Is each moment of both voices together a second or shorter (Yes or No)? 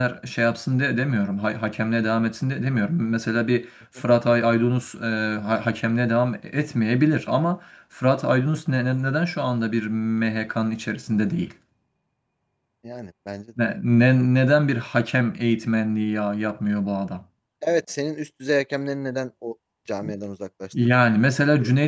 Yes